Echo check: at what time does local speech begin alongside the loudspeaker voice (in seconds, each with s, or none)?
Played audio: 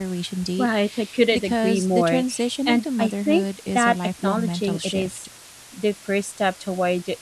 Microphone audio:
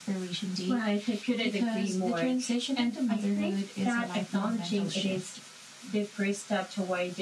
none